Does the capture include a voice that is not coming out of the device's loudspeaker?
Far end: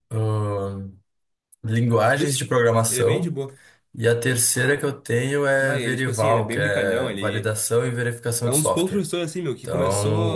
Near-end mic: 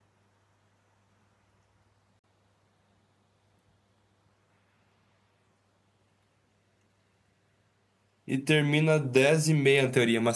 Yes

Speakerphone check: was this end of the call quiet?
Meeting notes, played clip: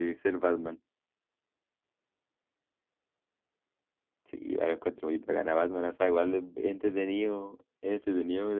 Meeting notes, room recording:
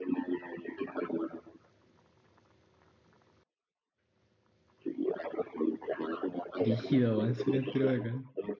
No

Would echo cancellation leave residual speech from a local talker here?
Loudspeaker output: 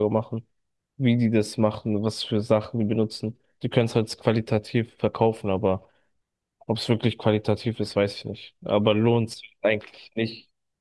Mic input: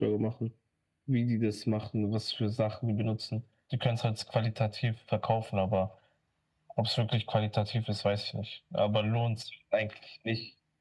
No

